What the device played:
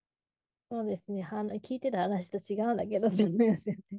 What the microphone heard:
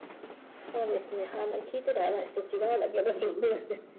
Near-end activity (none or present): none